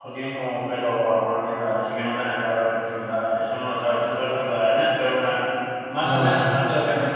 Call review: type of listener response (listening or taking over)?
listening